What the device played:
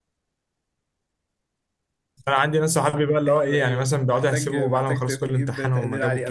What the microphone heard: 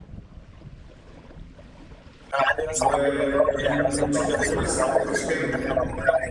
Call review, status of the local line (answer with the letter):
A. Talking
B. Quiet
A